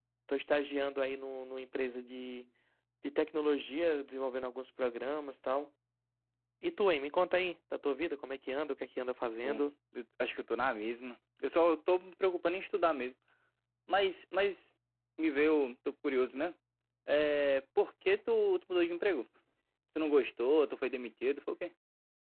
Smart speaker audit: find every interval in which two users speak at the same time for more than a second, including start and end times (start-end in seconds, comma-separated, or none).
none